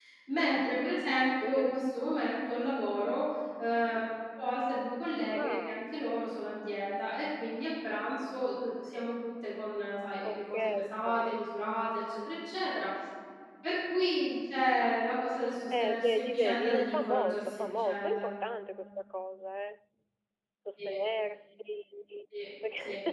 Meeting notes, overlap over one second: present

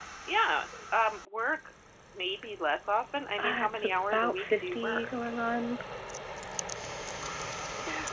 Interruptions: present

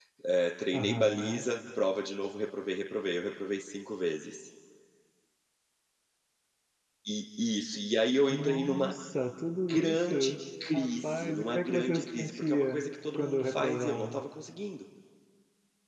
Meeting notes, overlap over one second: present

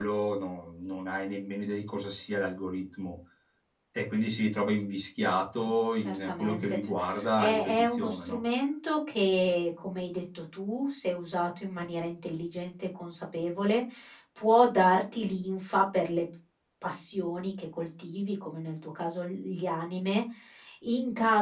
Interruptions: present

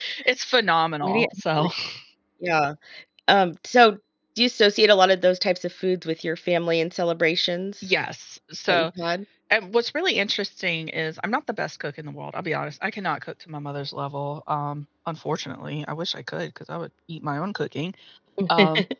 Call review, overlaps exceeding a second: none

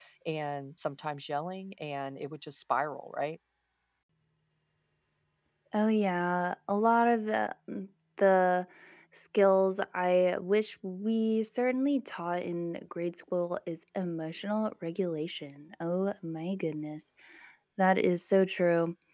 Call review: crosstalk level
none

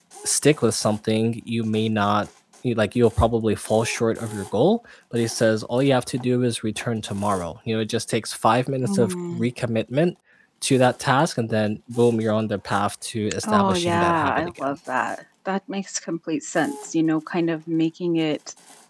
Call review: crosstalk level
present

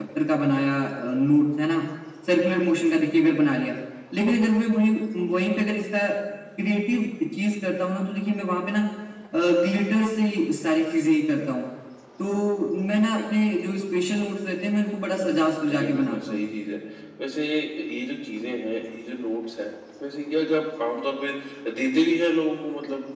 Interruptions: present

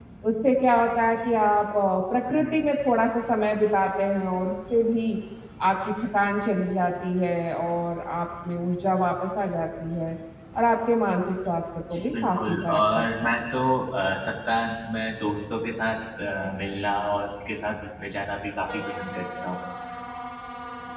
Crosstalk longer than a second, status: present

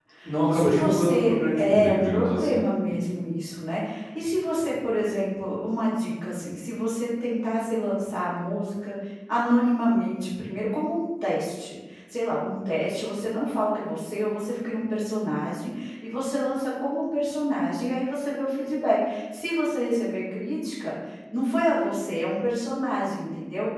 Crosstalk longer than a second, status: present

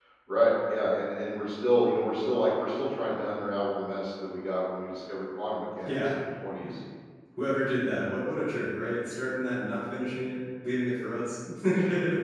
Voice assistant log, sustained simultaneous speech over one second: none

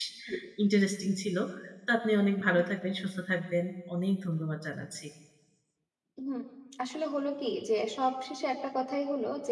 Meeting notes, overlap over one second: none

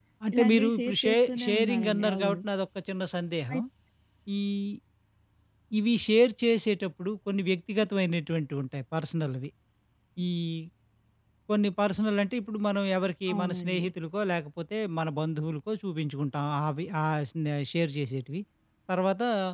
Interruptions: present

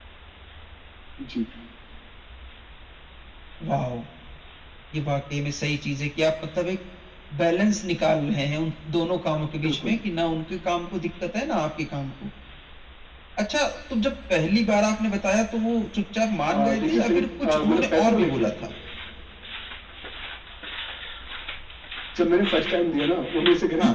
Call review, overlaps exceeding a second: present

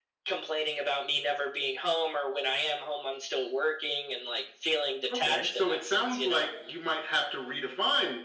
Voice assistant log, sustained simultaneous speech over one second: present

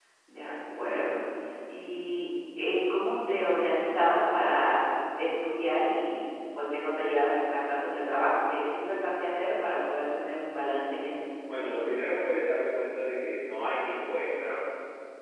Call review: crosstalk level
none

